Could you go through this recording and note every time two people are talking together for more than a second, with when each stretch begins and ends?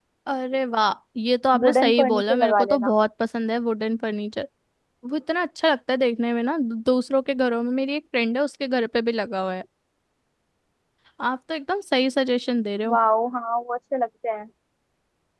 1.6-2.9

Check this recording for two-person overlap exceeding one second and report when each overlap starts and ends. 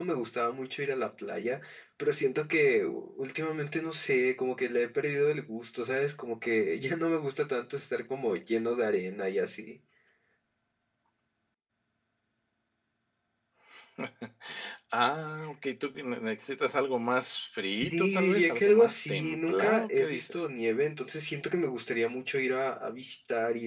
17.8-20.4

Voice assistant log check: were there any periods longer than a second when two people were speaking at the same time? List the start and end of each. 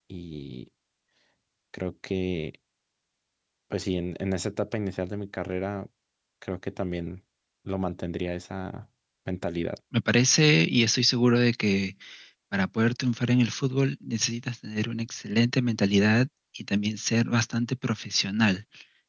none

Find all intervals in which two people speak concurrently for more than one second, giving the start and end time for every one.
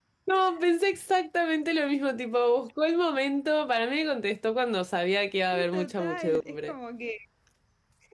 5.5-6.7

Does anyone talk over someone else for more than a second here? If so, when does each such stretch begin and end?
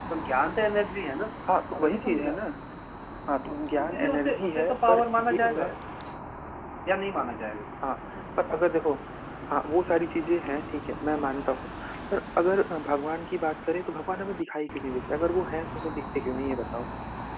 3.8-5.7

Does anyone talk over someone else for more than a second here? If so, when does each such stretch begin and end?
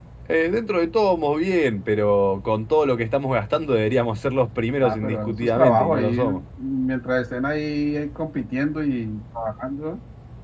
4.8-6.4

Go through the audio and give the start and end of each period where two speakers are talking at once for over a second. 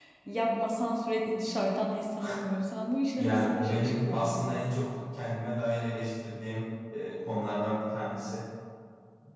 3.2-4.6

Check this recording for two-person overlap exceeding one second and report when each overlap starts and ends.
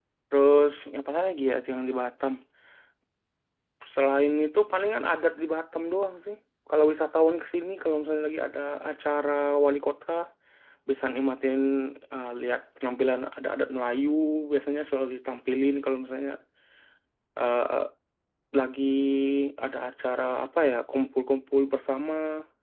none

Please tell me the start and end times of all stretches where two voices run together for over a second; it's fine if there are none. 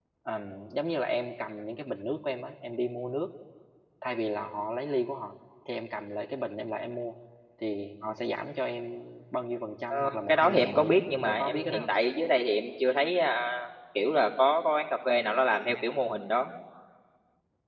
9.9-11.9

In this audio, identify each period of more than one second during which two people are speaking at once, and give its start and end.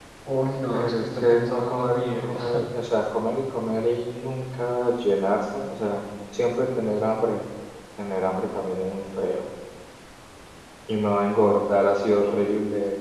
0.7-2.4

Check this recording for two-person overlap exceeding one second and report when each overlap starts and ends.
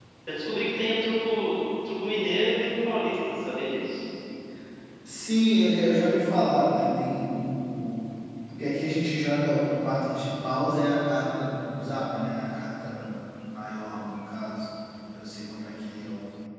none

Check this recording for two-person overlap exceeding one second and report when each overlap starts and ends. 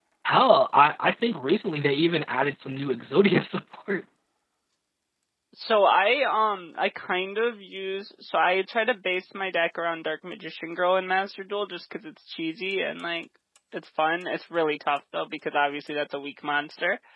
none

